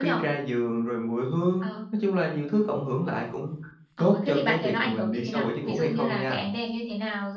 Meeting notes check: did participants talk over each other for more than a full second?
Yes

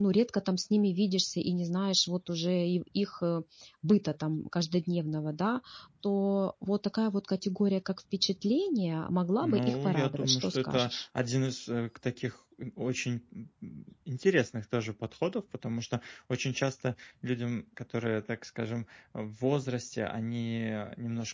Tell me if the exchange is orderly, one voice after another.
No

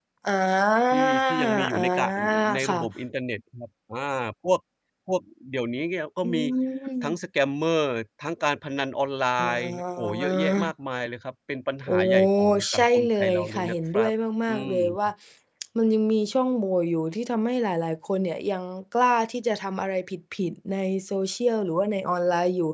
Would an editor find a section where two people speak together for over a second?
Yes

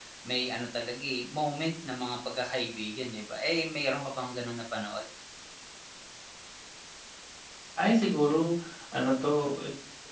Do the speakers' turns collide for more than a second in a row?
No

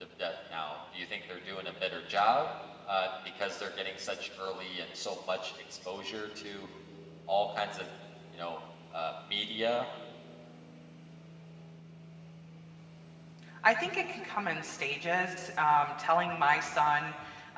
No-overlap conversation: Yes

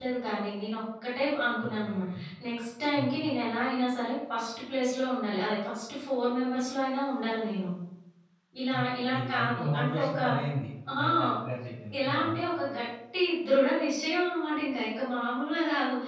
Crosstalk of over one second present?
Yes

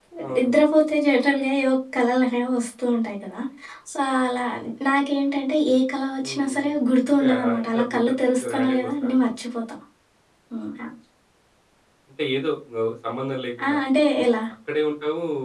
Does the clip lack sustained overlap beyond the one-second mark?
No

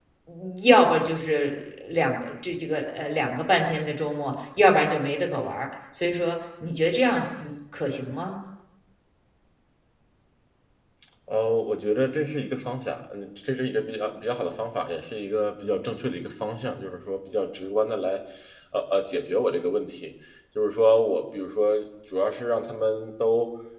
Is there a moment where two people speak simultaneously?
No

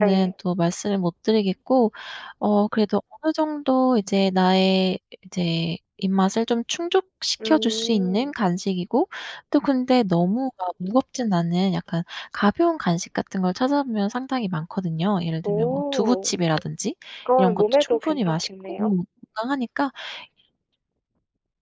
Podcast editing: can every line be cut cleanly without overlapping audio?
No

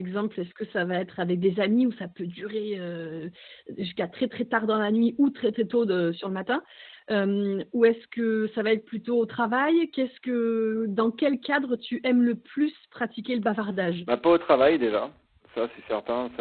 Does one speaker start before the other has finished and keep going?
No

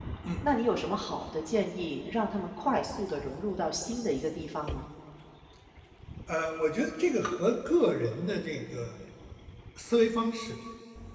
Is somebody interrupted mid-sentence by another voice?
No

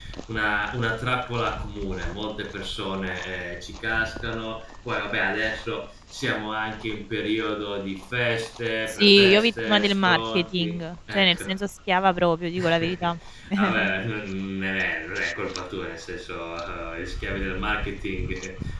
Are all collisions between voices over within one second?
No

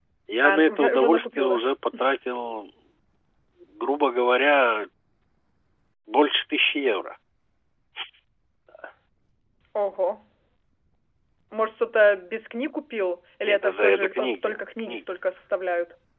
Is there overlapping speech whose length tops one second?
Yes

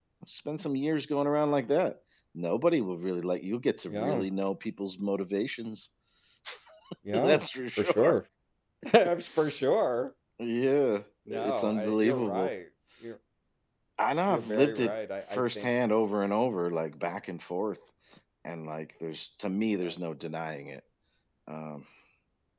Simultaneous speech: Yes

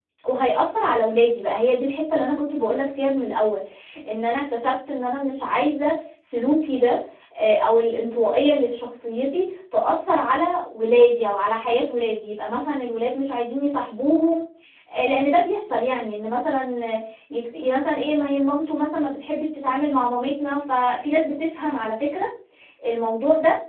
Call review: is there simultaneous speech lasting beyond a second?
No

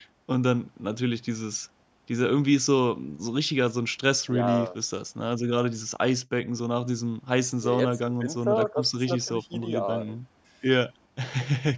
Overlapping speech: Yes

